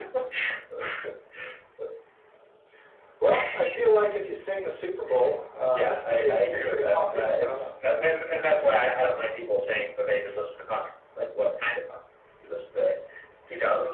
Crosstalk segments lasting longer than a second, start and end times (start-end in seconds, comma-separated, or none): 5.7-7.6